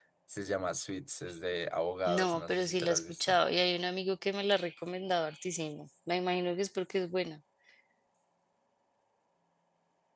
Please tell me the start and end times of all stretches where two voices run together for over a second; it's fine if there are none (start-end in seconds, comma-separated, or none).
2.1-3.4